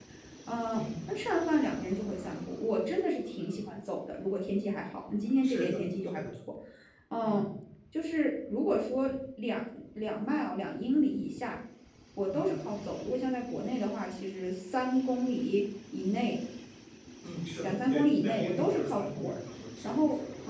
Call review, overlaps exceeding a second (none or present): present